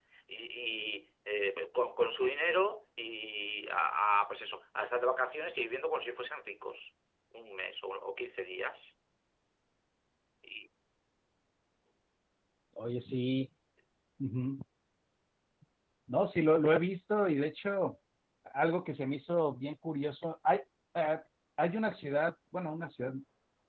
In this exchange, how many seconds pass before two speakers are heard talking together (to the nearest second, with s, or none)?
none